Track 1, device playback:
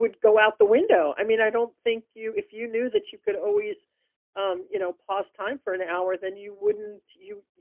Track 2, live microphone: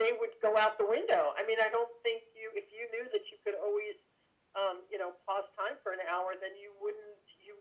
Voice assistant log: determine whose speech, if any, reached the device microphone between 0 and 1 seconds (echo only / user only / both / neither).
echo only